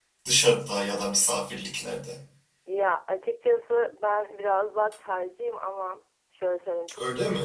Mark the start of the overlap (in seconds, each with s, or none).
none